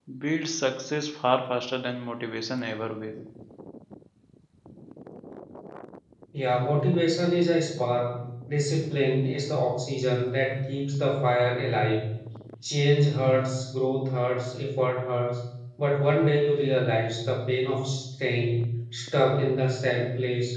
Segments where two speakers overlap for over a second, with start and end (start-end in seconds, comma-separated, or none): none